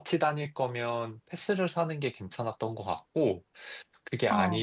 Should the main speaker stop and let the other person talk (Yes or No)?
No